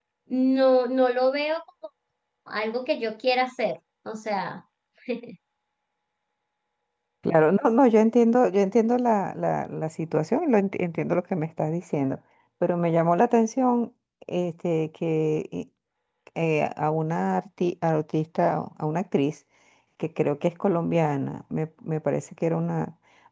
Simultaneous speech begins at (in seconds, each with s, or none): none